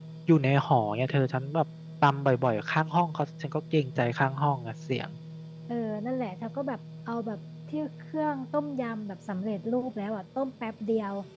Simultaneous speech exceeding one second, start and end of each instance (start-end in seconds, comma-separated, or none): none